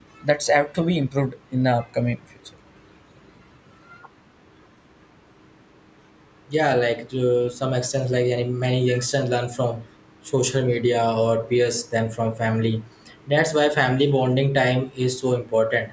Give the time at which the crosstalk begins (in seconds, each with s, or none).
none